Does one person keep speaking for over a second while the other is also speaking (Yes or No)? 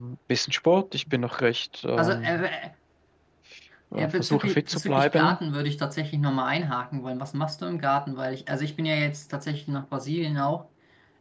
Yes